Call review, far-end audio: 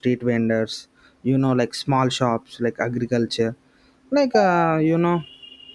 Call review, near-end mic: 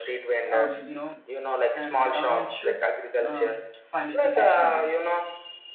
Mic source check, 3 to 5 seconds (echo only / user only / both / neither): both